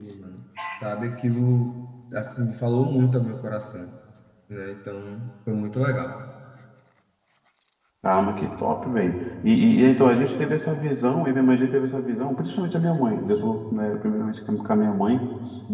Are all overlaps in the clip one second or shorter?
Yes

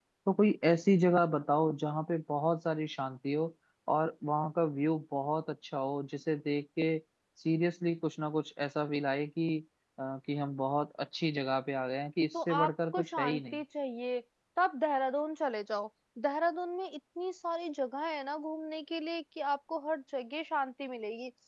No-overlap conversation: No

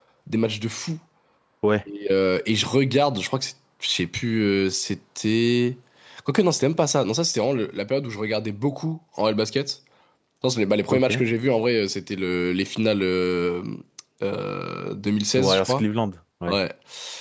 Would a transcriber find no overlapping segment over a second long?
Yes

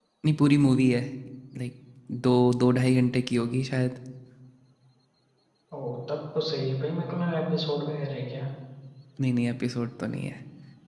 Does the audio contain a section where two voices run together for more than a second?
No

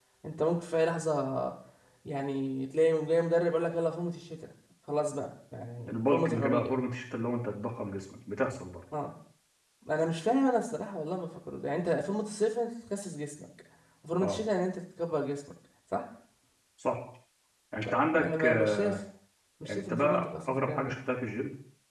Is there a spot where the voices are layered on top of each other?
Yes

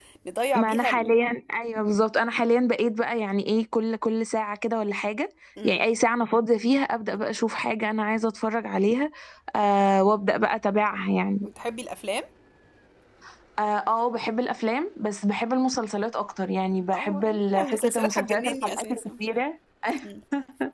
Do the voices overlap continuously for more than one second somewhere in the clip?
Yes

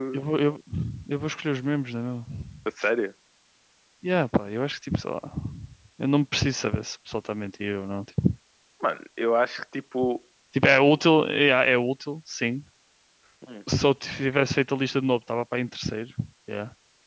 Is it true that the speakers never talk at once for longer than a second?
Yes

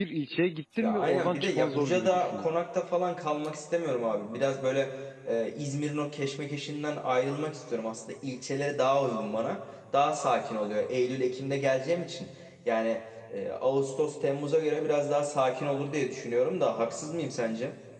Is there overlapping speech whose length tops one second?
Yes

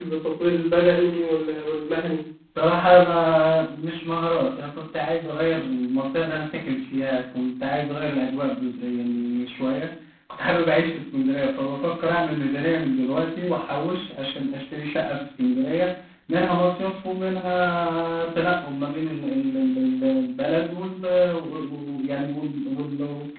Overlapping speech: No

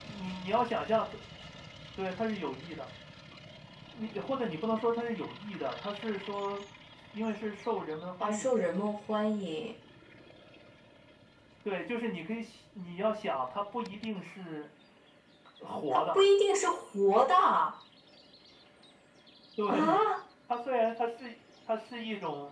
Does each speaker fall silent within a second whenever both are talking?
Yes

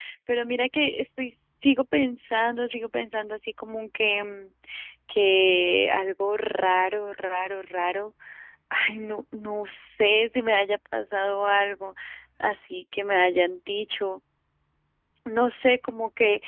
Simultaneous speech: No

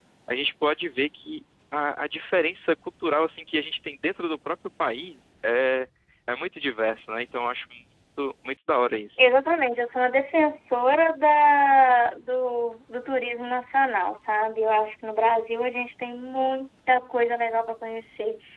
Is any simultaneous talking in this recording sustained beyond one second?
No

